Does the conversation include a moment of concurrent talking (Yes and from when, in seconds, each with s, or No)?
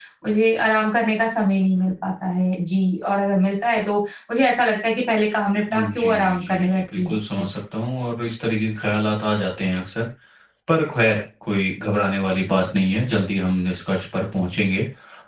Yes, from 5.7 s